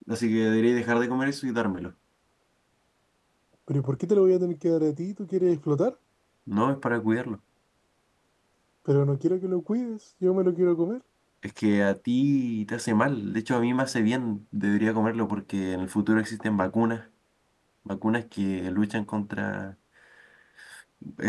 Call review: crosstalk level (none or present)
none